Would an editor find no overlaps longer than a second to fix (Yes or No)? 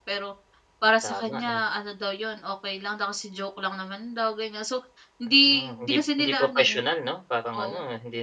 No